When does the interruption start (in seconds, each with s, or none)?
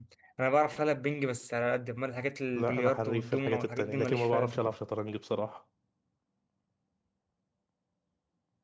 2.6 s